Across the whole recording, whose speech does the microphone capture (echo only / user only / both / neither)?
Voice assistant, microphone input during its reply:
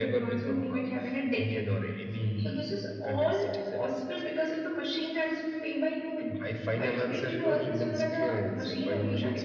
echo only